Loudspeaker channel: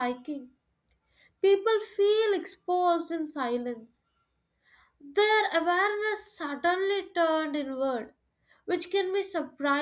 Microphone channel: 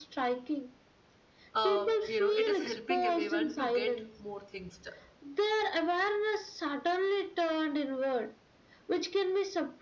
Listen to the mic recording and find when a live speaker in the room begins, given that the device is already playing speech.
1.5 s

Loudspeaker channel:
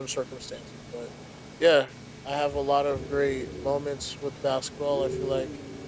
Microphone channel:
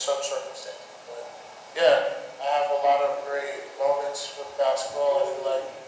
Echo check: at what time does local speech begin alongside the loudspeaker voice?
none

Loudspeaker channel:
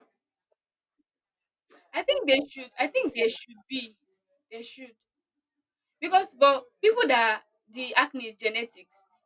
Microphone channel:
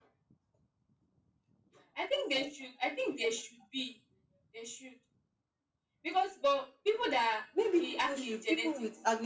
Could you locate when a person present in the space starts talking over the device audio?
7.5 s

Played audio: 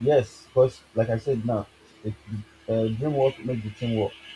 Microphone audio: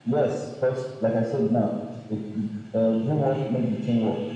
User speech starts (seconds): none

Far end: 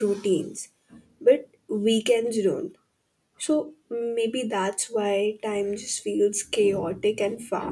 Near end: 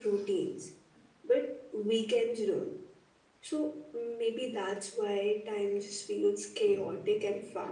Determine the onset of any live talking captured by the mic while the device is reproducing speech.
none

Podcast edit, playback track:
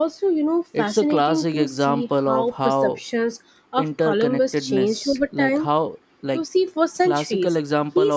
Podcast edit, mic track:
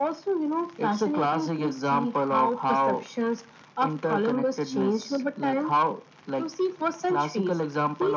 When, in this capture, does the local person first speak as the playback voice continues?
none

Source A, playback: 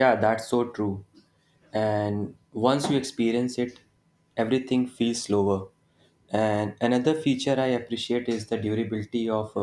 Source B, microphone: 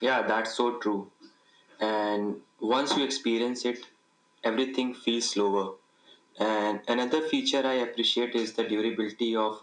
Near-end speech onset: none

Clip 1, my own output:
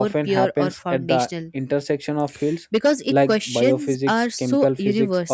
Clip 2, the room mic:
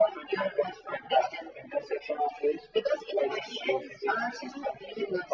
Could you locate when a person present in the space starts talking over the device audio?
none

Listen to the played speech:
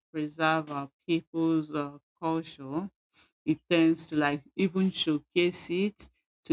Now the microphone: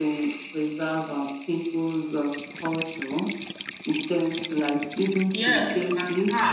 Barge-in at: 5.3 s

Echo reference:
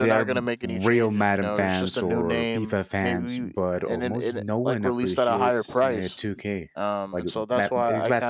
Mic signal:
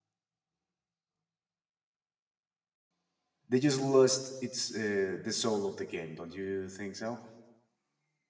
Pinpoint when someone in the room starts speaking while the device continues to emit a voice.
3.5 s

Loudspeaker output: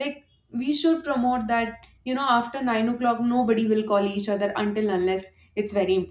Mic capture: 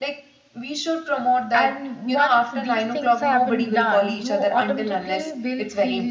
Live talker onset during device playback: 1.5 s

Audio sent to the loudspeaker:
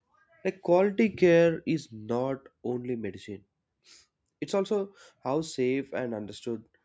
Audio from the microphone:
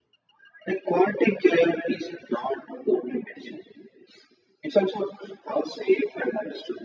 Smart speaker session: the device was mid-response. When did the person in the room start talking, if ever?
none

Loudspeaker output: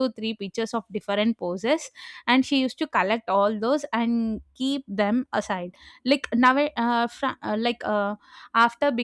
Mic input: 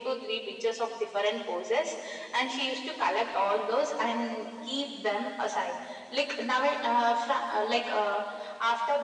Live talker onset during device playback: none

